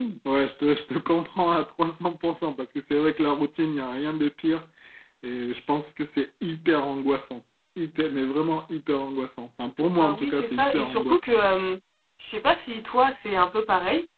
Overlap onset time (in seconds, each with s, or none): 9.9 s